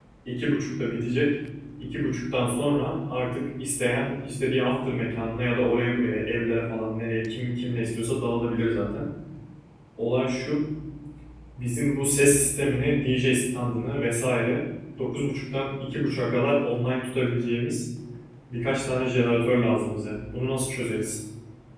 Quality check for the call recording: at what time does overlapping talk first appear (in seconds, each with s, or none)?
none